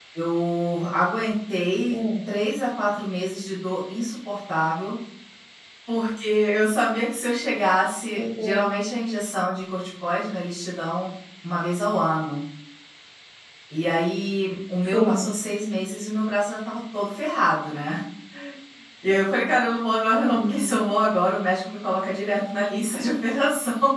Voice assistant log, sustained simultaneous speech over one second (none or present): none